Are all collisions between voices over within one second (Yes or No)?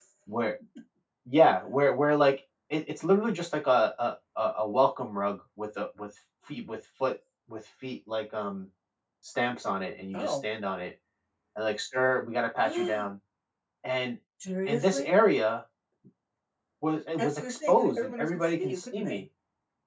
No